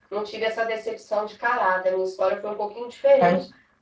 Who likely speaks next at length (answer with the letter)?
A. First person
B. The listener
A